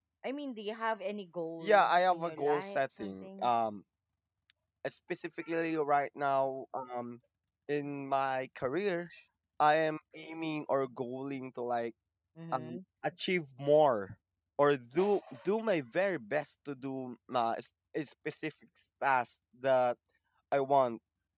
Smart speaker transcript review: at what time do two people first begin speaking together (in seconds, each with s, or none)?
1.6 s